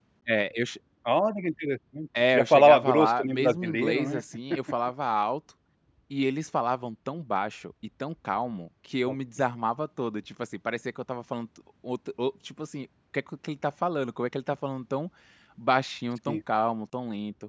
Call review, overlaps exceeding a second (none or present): present